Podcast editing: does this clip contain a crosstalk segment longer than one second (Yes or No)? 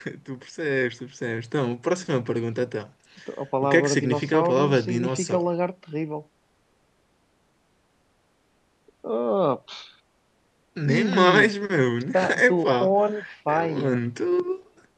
Yes